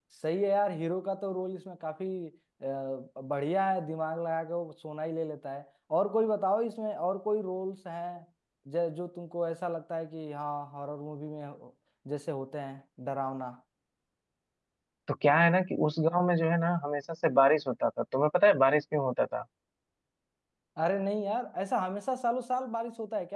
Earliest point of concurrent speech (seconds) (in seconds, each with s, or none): none